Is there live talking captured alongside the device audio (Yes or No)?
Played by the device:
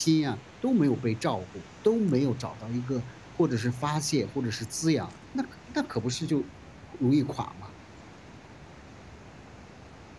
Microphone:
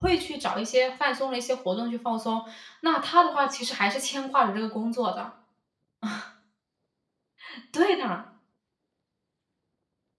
Yes